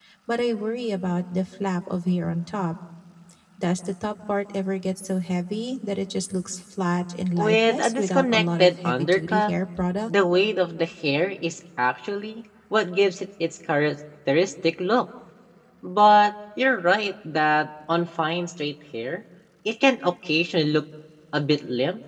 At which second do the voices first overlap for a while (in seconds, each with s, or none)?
7.4 s